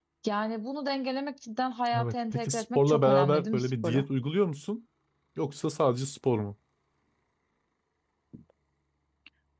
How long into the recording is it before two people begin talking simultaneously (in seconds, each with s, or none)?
1.9 s